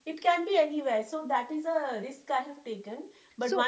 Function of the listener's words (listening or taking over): listening